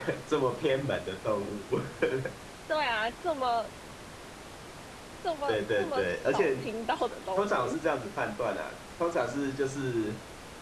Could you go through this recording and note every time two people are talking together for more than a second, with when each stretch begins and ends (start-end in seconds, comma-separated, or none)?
5.5-6.7